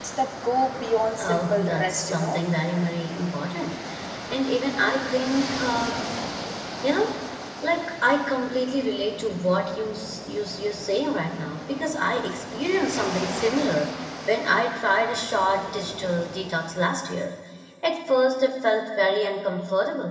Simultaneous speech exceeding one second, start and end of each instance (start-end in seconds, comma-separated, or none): 1.2-2.4